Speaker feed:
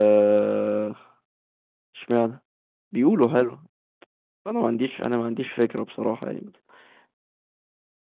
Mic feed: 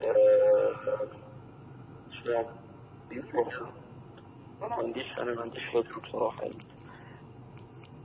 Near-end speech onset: none

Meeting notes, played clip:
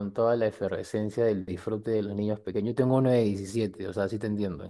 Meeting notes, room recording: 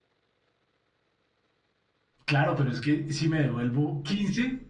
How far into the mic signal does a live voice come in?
2.2 s

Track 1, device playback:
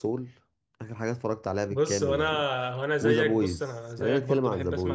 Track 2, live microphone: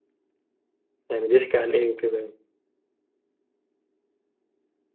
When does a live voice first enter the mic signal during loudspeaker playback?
1.1 s

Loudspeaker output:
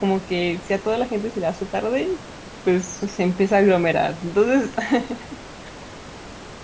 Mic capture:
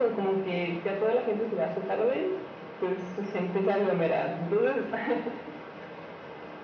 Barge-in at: none

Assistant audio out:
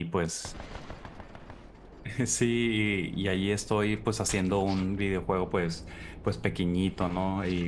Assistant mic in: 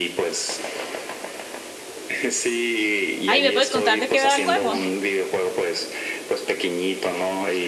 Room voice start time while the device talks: 3.2 s

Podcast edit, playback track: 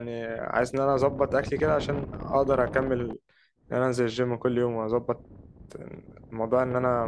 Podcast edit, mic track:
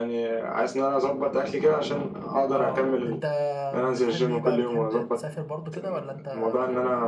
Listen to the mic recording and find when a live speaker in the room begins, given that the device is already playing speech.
2.5 s

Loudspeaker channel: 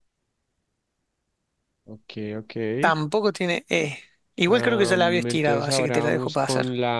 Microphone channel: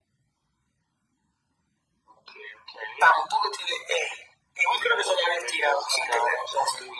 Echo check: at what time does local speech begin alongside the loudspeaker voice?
none

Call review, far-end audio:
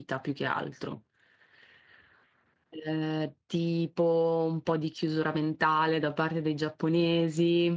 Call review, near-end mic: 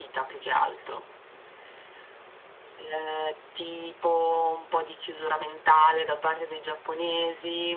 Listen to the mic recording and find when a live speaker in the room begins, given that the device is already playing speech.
none

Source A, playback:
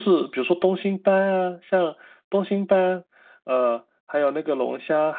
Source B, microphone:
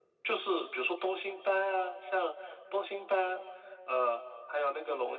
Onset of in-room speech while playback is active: none

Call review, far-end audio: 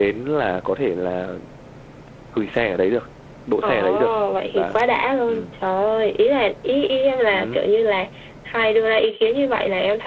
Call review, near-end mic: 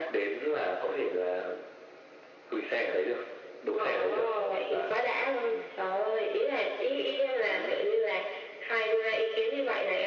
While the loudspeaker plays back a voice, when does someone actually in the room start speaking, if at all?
none

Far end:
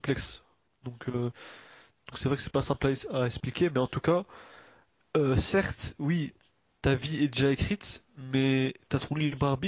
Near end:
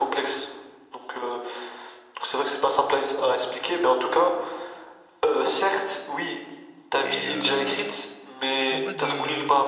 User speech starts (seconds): 7.0 s

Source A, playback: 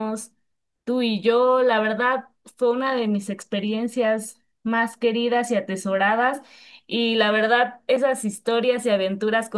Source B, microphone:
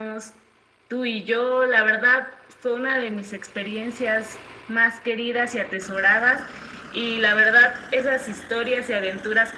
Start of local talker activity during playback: none

